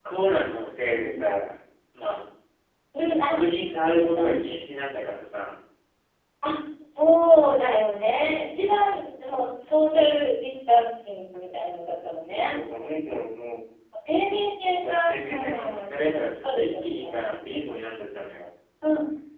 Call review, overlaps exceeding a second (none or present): present